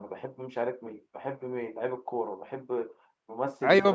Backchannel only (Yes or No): No